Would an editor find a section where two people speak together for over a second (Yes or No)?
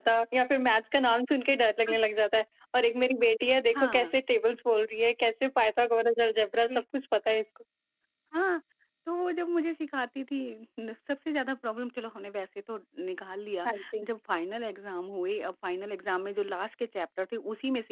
No